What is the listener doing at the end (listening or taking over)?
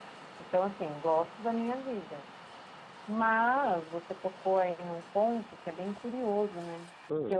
listening